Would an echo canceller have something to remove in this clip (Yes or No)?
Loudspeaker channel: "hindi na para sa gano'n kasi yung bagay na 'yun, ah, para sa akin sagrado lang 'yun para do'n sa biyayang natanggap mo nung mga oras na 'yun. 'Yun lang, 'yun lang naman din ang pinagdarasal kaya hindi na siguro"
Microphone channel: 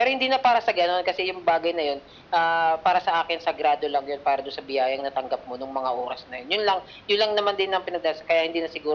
Yes